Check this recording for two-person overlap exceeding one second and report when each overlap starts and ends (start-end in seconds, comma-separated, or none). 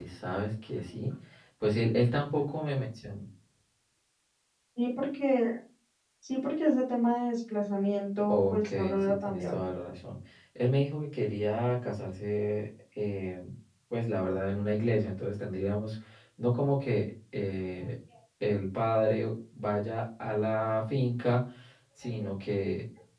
8.3-9.7